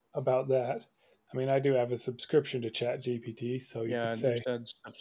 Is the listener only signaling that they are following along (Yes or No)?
No